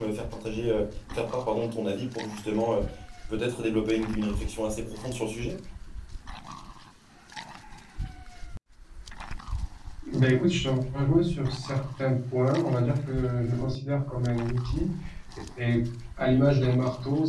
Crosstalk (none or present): none